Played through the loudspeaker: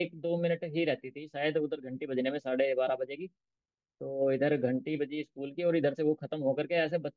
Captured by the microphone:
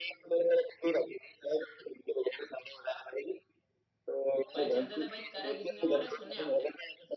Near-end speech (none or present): present